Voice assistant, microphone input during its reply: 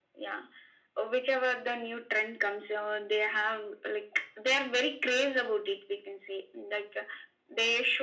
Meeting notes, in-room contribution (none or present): none